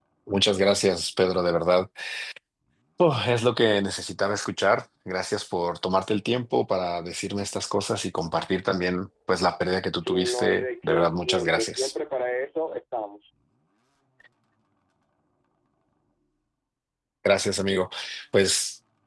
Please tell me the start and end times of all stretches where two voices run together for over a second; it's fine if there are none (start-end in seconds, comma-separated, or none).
10.0-11.9